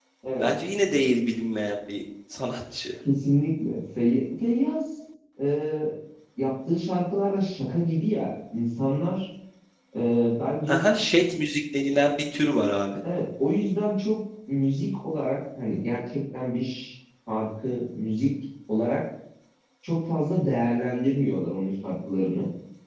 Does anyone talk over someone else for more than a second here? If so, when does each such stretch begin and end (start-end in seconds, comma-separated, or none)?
none